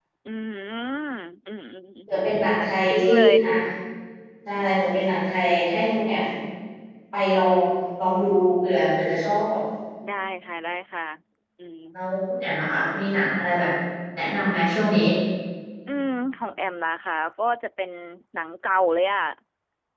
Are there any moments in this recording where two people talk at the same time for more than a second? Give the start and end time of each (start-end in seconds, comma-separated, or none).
2.1-3.3